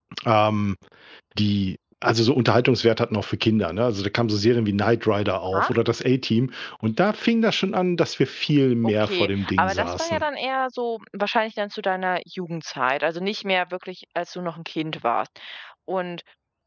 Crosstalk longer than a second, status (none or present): present